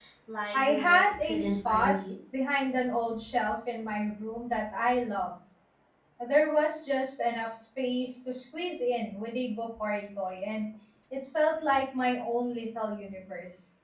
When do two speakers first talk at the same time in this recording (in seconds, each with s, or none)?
0.5 s